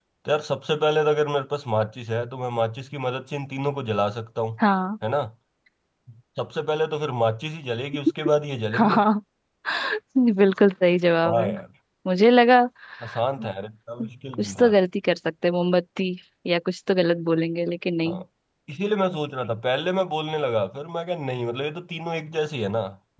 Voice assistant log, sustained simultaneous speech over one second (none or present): none